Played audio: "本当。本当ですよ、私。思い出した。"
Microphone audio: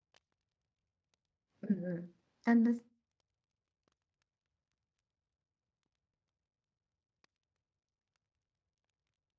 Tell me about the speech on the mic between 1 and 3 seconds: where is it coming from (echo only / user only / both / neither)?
user only